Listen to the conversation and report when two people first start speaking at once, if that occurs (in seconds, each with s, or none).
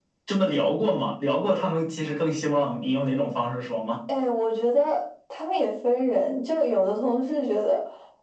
none